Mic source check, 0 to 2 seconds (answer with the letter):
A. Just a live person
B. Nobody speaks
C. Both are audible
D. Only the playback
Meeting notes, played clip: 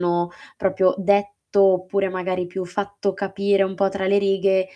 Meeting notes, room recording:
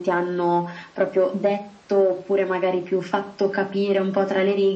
D